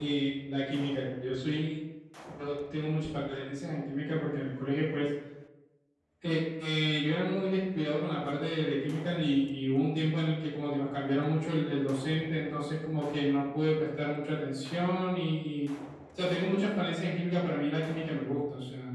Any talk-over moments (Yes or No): No